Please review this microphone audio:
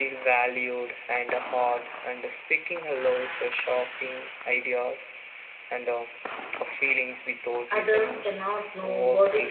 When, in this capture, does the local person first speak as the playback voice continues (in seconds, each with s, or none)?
7.7 s